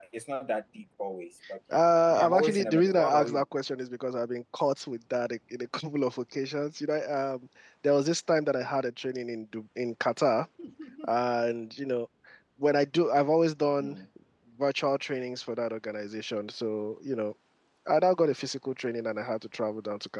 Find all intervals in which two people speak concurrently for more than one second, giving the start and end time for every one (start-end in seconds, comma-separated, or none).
2.1-3.4